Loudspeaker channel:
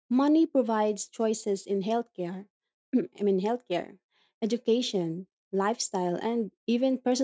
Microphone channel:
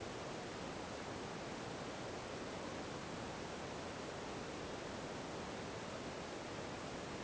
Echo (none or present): none